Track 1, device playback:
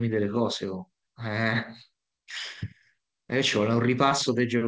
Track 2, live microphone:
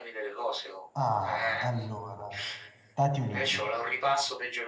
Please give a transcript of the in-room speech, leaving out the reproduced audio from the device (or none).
Ah, allora, Stati Uniti.